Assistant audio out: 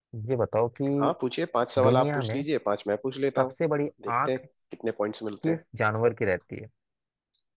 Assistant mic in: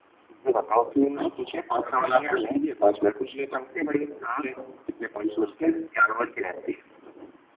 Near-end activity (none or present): none